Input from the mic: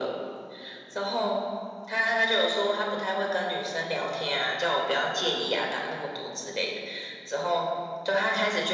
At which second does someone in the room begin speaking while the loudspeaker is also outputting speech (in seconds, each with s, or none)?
none